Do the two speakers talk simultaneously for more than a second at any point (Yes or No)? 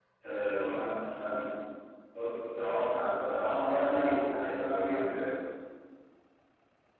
Yes